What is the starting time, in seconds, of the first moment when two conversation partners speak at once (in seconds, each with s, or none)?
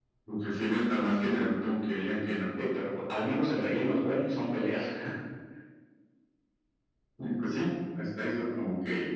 none